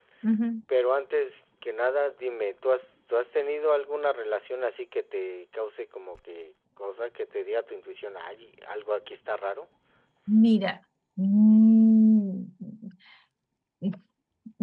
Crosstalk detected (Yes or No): No